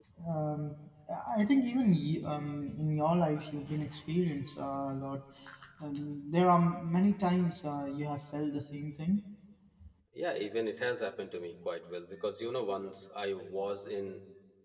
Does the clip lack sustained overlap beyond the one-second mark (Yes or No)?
Yes